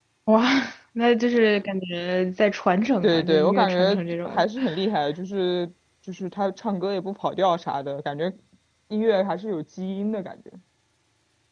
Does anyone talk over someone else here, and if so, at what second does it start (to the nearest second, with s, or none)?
3 s